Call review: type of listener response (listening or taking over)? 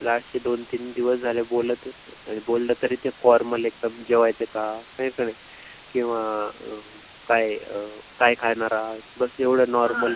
taking over